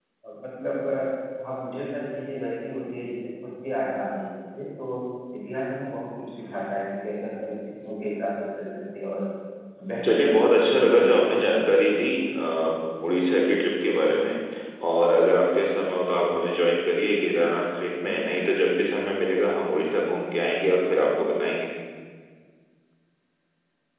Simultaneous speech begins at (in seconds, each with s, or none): 10.0 s